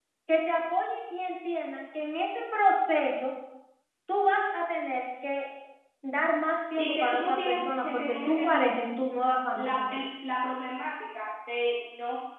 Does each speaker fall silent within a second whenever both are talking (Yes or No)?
No